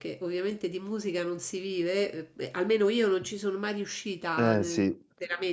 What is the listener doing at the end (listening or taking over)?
listening